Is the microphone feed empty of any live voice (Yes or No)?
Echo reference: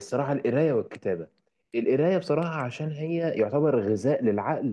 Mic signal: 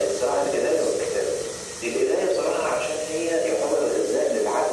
Yes